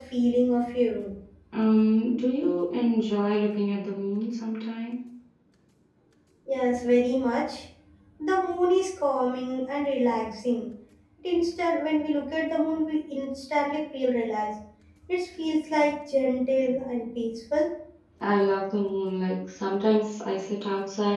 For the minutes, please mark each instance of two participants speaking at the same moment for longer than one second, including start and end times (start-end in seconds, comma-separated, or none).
none